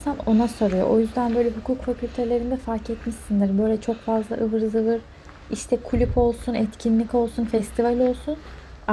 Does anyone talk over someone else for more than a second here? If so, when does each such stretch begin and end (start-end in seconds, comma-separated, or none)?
none